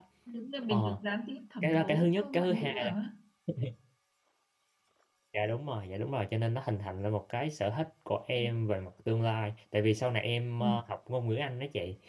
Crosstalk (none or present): present